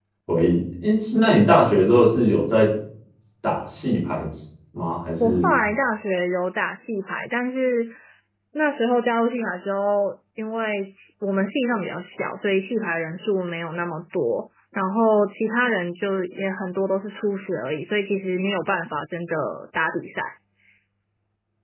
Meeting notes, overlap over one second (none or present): none